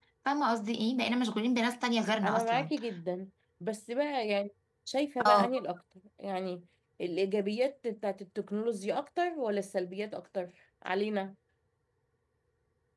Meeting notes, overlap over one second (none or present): none